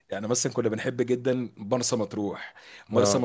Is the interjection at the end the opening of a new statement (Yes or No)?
No